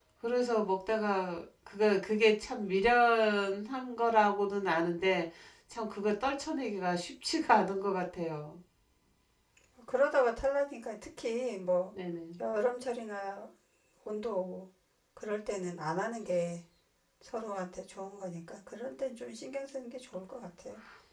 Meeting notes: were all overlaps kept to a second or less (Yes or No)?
Yes